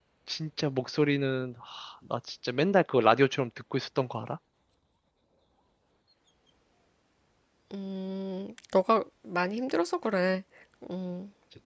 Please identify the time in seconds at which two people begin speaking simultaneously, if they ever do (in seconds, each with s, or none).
none